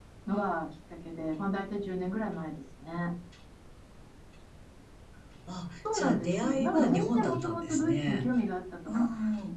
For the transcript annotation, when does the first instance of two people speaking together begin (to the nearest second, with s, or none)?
6 s